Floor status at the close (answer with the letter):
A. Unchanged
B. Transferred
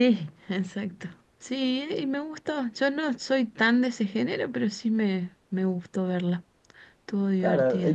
B